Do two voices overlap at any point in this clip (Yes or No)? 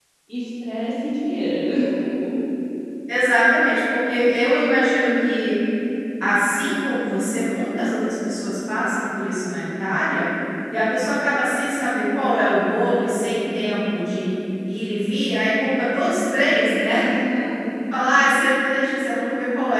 No